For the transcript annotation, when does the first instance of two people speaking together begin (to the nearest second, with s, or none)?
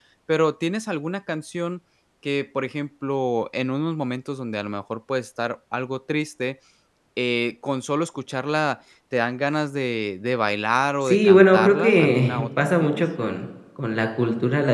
11 s